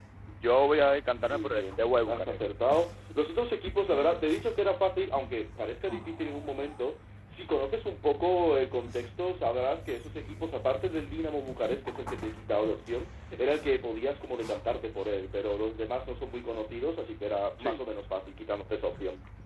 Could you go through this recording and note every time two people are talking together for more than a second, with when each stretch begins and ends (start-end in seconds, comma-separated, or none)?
1.1-2.4